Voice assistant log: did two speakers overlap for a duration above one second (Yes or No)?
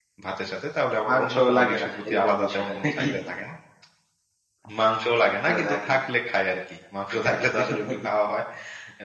Yes